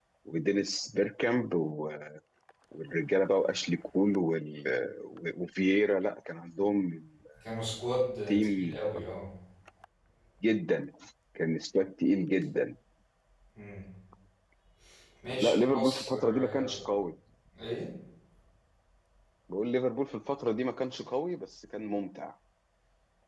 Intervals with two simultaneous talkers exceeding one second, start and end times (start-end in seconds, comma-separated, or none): 15.3-16.9